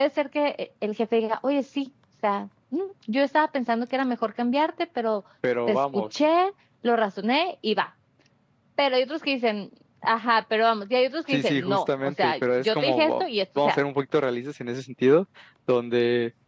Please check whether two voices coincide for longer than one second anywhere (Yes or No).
Yes